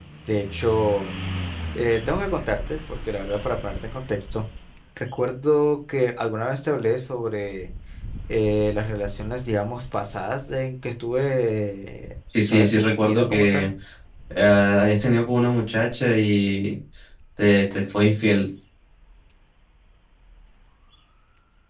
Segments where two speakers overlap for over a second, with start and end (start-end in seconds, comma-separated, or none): 12.4-13.7